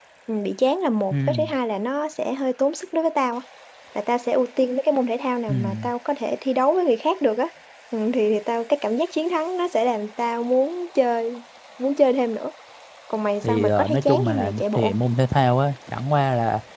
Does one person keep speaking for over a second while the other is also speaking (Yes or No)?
Yes